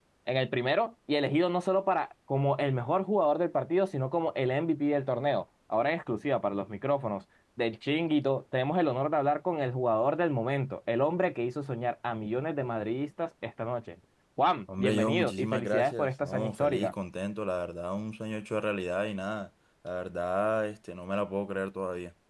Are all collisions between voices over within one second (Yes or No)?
No